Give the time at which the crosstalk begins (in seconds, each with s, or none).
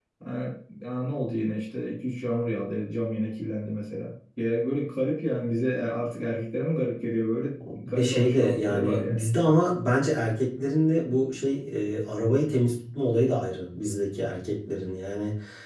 7.9 s